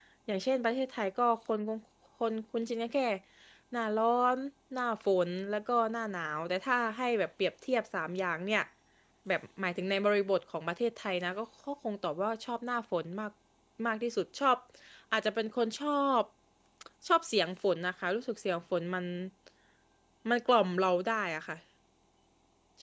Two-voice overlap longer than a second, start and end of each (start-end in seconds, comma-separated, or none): none